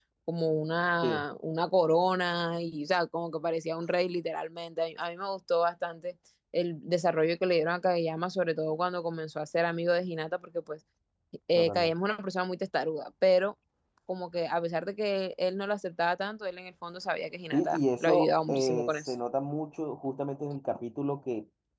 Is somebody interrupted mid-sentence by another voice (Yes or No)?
Yes